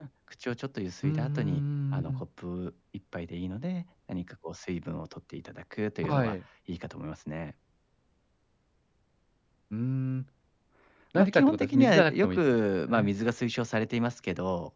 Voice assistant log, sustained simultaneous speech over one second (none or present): present